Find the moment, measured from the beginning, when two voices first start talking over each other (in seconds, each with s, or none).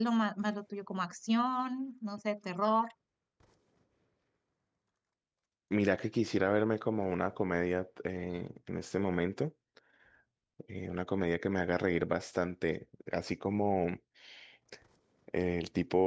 none